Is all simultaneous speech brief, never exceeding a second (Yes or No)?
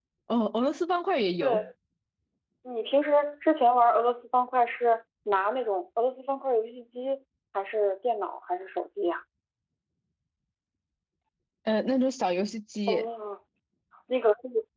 Yes